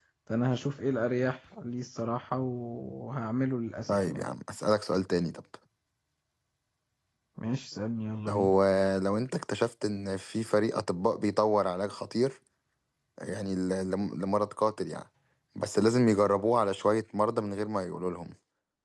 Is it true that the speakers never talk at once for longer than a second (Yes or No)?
Yes